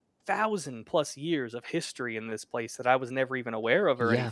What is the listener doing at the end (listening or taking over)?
listening